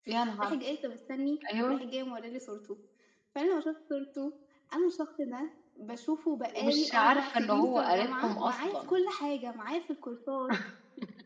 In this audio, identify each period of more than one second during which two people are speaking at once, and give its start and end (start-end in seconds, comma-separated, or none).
6.5-8.9